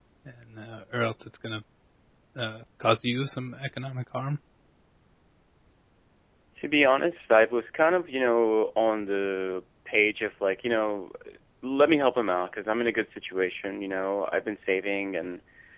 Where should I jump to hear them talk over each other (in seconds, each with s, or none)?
none